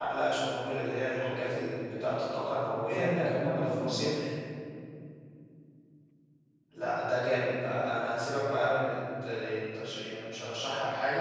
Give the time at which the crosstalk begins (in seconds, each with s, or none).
2.8 s